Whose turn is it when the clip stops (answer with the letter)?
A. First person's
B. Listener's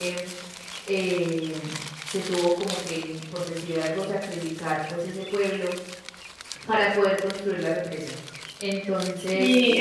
B